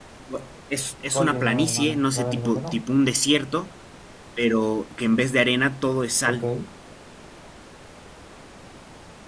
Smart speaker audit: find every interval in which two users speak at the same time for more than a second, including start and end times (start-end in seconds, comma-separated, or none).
1.1-2.8